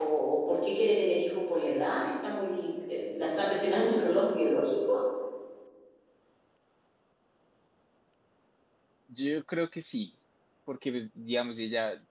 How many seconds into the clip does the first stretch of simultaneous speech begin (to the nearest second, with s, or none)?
none